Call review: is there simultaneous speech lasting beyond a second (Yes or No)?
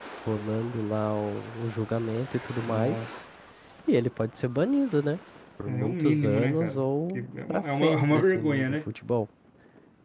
Yes